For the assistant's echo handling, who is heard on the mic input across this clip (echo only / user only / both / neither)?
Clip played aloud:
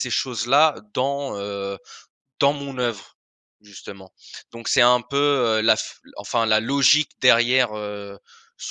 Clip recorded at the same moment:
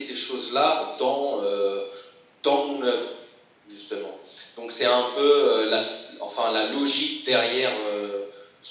echo only